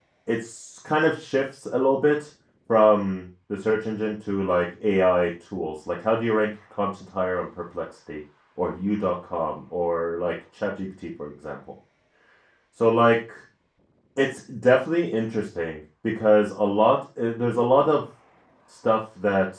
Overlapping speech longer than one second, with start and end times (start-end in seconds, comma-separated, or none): none